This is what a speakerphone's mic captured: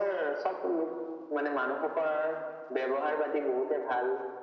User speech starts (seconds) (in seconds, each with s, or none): none